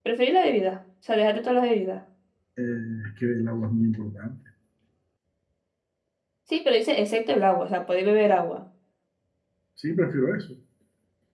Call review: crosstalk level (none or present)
none